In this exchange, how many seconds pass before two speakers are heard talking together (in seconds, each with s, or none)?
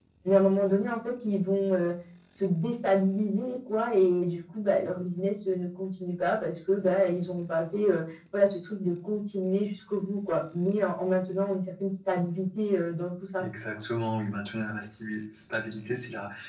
none